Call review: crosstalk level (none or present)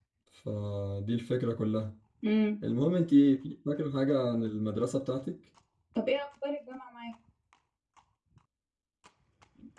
none